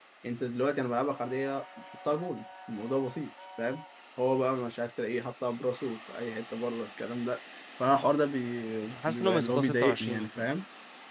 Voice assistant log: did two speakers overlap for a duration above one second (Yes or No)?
Yes